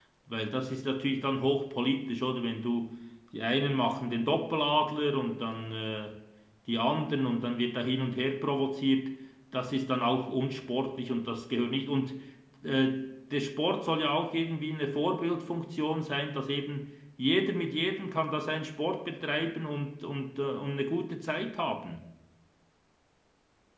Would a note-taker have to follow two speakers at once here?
No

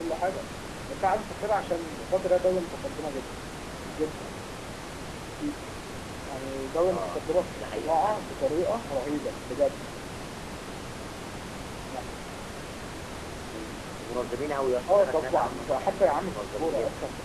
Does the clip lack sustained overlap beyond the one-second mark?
No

